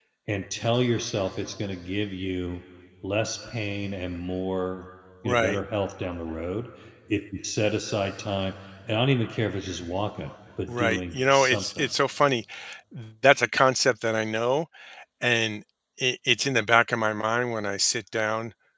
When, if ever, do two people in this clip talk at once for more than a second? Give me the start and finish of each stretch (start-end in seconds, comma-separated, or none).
10.7-11.9